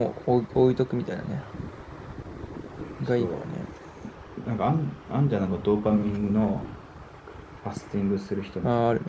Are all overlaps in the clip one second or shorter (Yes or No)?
Yes